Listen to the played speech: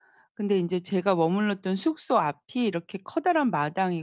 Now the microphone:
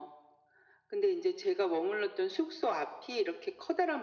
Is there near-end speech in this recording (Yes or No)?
No